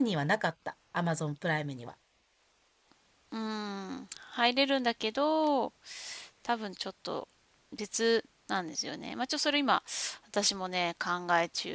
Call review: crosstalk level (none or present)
none